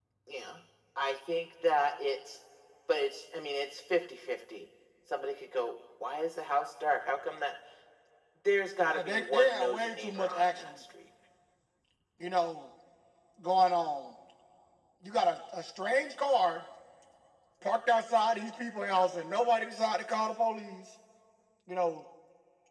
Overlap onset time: 8.9 s

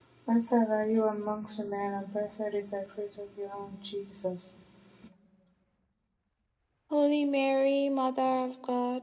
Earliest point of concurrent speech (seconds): none

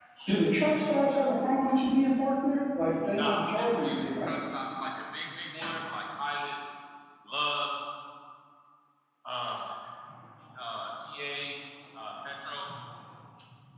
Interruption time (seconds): 3.1 s

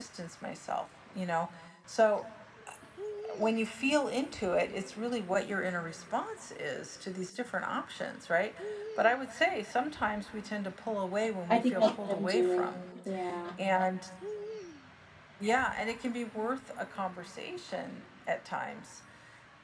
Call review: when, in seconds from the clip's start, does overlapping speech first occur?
11.5 s

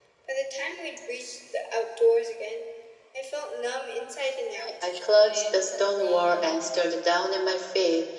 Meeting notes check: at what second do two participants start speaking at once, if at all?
4.8 s

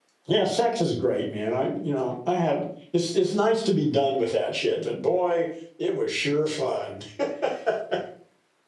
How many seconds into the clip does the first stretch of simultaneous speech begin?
none

